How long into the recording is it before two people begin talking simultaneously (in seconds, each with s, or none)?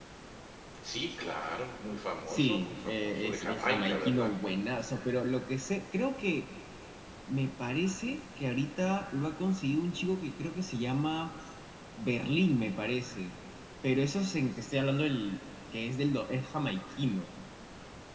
2.3 s